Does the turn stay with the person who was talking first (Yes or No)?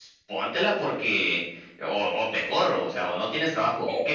No